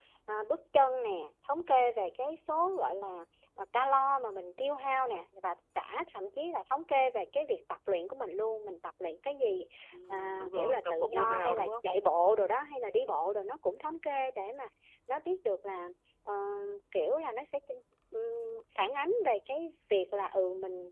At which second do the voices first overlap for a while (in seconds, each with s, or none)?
10.1 s